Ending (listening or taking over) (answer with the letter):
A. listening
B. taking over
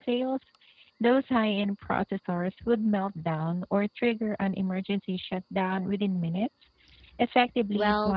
B